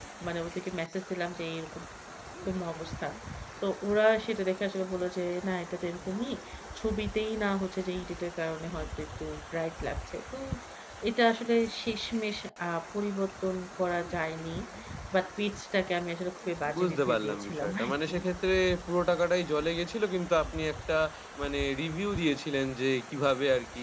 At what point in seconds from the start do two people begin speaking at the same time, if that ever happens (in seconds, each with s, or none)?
16.7 s